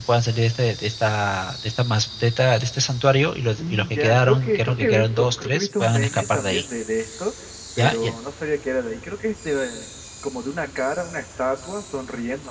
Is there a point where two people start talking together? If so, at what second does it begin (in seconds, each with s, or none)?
3.6 s